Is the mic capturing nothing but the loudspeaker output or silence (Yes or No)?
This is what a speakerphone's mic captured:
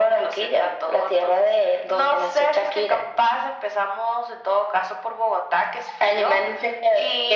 Yes